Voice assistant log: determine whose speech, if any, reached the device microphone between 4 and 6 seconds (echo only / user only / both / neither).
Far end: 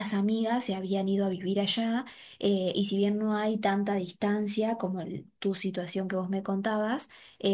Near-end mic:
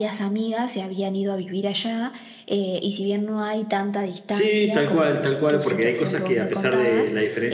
both